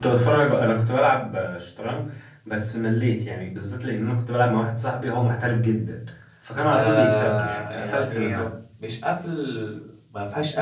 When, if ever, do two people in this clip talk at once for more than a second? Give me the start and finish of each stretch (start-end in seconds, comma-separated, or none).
6.7-8.5